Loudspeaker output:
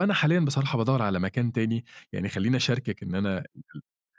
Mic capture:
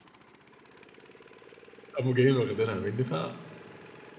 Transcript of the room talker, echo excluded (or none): قاموا جايين واخدينها مني، ف